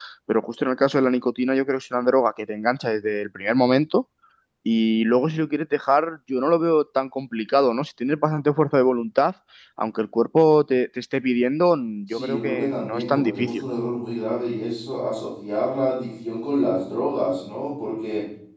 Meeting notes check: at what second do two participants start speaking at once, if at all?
12.1 s

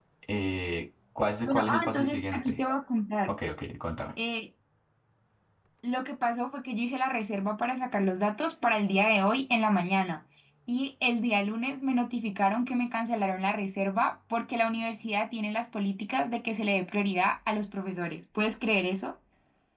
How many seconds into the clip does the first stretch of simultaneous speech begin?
1.4 s

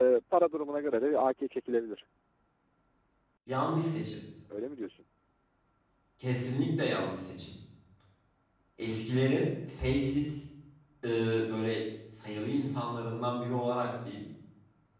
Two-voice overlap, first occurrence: none

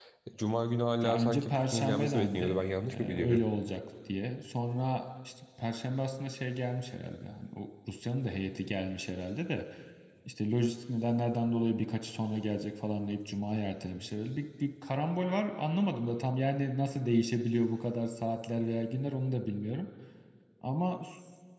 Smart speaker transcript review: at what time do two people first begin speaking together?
1.0 s

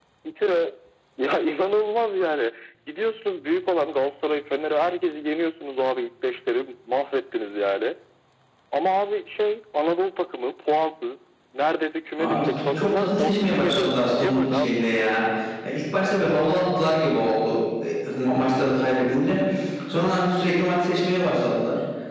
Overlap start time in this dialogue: 12.2 s

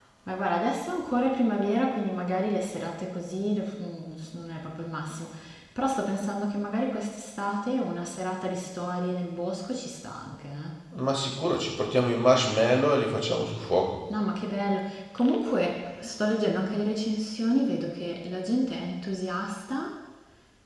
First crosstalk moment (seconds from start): none

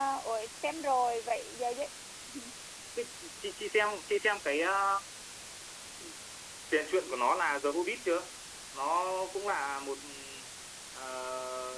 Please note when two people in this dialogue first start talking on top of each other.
none

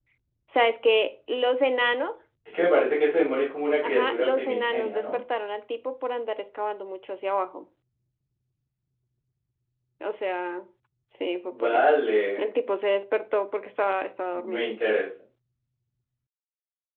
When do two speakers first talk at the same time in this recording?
3.8 s

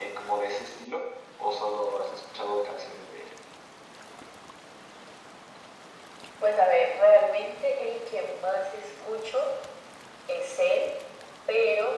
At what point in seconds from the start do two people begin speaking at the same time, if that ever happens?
none

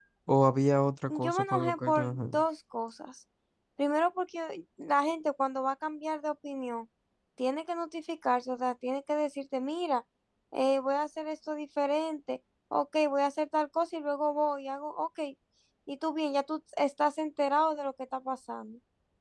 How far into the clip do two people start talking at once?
1.1 s

